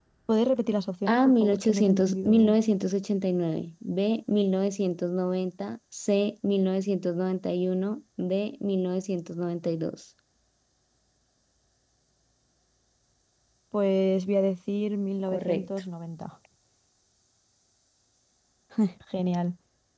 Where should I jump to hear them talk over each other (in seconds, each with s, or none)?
1.1 s